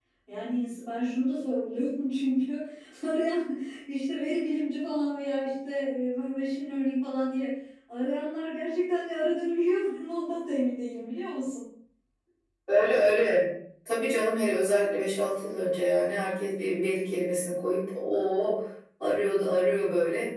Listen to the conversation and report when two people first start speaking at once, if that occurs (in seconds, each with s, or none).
none